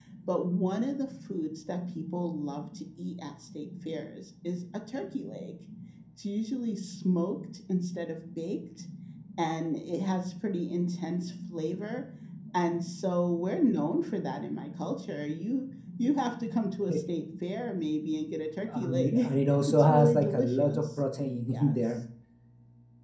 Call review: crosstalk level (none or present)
present